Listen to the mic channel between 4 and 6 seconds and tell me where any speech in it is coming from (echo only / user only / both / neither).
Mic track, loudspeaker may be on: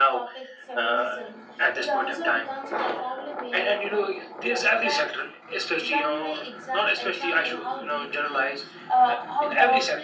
echo only